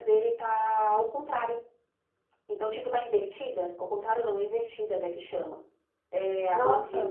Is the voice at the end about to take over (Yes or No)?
No